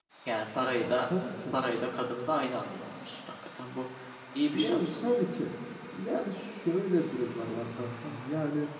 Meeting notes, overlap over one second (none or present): none